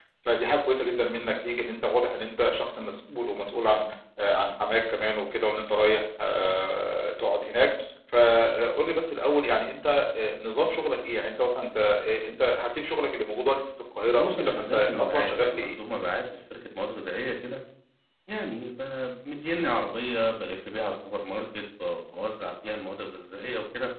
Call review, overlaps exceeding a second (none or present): present